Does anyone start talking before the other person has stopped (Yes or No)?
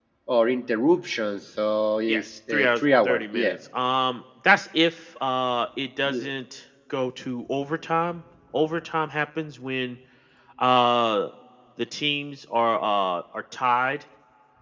Yes